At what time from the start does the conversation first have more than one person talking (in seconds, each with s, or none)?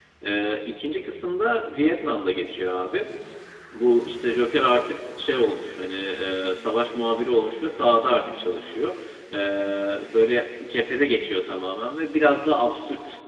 none